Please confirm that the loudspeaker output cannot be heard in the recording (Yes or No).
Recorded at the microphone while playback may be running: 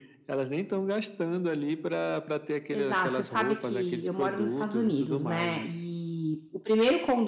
No